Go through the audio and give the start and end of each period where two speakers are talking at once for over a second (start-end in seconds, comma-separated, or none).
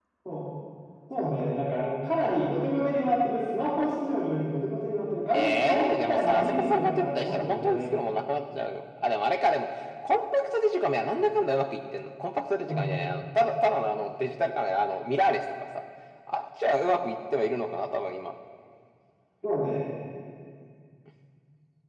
5.3-7.8